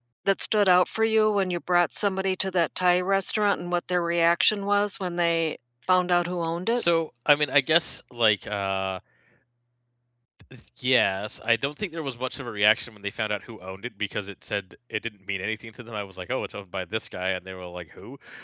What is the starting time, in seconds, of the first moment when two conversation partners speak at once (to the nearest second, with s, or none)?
none